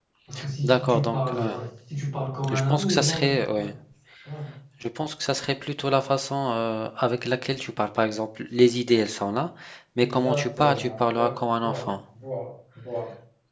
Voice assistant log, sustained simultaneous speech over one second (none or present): present